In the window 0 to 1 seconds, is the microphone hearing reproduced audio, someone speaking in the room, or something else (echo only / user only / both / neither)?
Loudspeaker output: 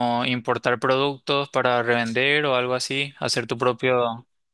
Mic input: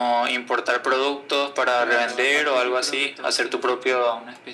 echo only